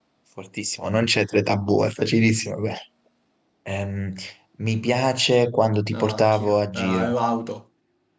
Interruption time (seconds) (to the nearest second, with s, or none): 6 s